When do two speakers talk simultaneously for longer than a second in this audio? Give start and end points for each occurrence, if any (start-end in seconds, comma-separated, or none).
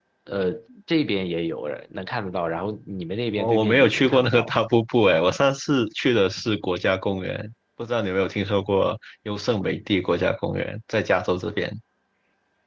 3.3-4.6